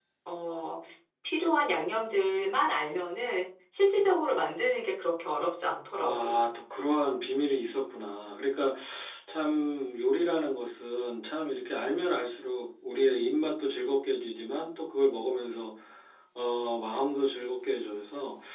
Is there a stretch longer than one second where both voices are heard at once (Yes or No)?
No